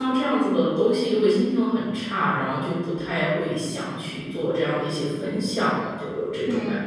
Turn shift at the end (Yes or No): Yes